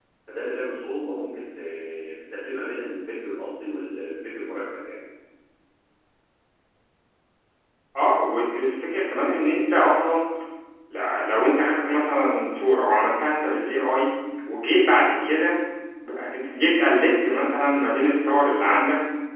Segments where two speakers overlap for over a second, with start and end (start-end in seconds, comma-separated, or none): none